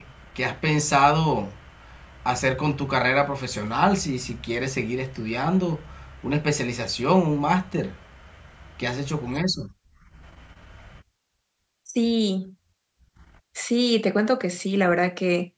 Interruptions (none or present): none